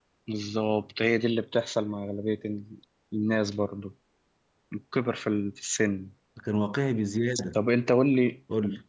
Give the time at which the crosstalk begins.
none

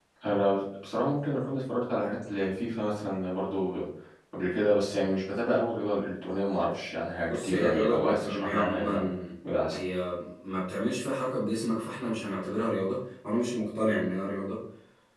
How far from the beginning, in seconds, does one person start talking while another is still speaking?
7.3 s

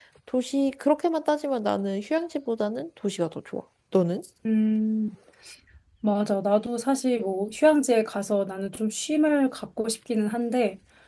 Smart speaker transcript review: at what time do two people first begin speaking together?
none

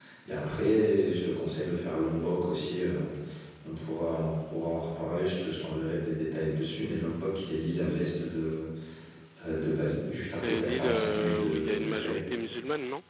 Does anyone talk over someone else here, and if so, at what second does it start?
10.4 s

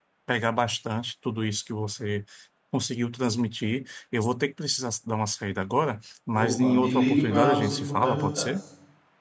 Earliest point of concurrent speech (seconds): 6.3 s

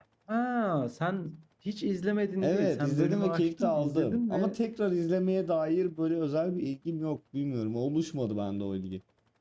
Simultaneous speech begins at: 2.4 s

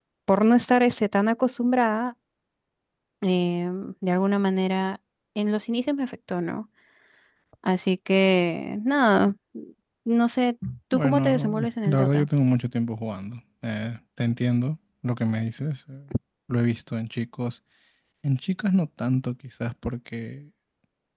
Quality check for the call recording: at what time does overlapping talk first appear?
10.9 s

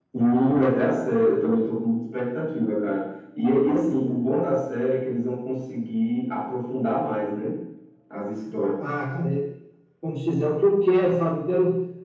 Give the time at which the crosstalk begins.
none

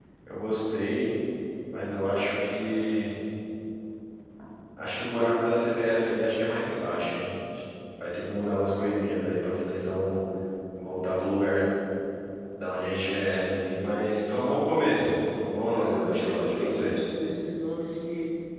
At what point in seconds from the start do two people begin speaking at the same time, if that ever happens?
15.7 s

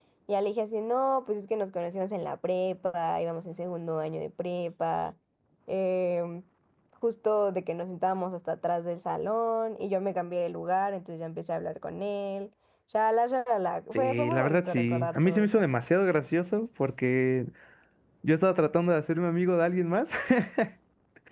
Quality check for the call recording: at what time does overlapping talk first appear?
14.0 s

